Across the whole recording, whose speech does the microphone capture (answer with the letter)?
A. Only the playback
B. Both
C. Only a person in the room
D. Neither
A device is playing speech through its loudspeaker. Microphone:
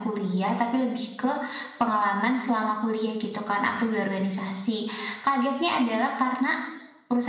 A